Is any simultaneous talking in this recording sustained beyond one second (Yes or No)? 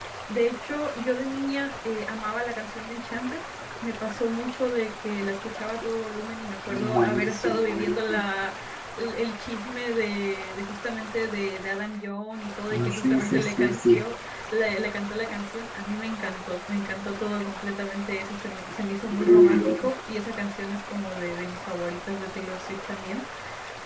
Yes